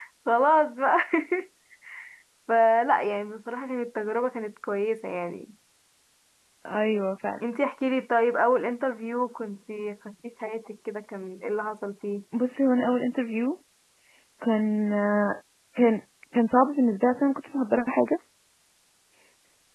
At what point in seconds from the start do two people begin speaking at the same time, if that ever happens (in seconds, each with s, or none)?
none